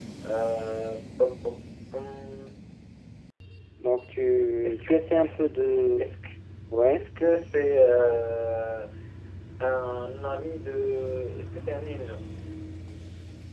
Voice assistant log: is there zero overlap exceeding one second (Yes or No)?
Yes